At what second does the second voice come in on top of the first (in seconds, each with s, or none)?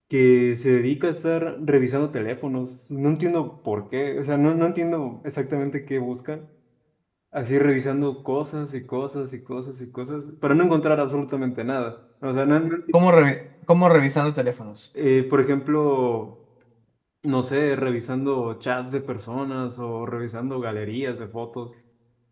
none